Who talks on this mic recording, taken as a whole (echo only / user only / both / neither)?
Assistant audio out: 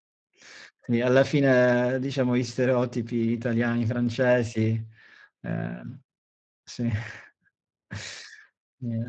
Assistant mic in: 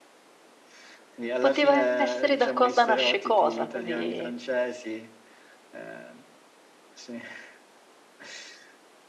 both